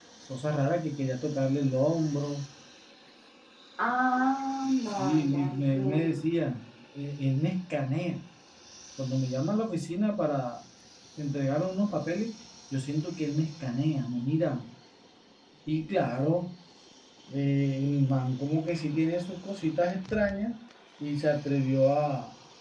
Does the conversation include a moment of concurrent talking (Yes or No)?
Yes